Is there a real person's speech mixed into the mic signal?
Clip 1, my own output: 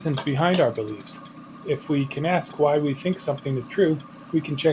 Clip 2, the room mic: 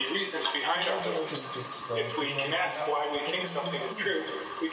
Yes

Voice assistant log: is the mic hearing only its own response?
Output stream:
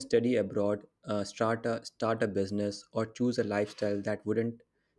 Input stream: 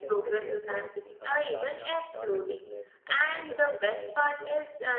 No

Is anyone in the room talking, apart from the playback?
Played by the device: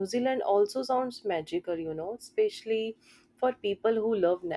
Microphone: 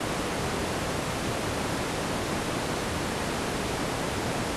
No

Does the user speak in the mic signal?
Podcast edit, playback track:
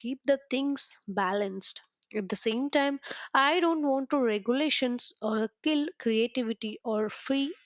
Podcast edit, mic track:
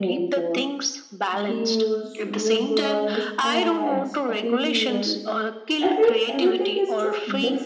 Yes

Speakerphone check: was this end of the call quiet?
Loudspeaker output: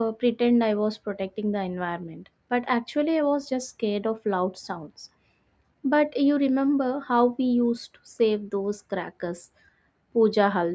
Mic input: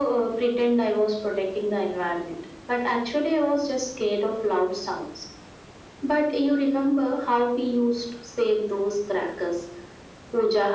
Yes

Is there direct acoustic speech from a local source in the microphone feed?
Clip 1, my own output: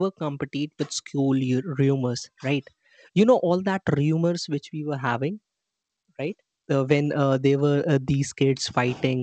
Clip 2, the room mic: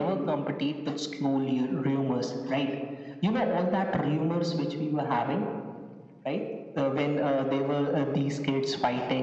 No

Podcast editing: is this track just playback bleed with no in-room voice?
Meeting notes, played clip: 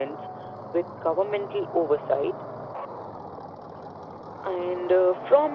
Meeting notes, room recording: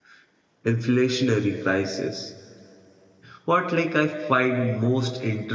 No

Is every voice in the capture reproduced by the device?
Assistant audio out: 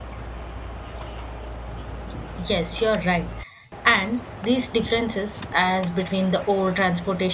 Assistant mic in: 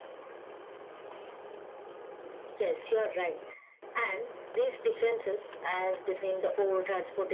Yes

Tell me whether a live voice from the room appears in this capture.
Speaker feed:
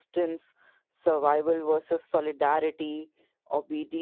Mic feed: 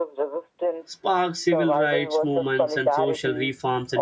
Yes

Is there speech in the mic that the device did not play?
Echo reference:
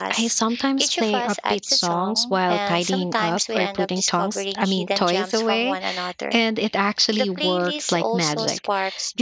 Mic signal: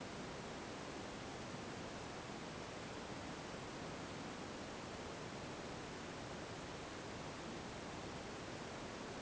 No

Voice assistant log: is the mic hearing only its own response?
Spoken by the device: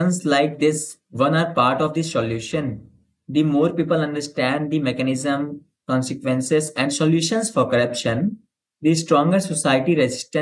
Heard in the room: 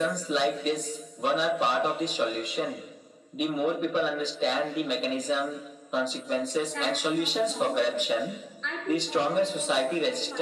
No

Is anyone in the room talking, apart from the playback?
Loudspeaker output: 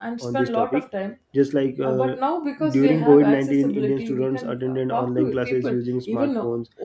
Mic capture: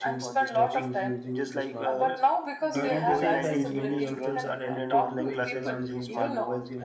Yes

